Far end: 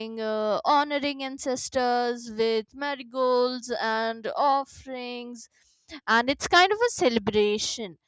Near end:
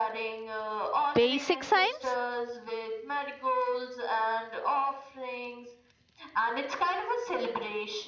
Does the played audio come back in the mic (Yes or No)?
Yes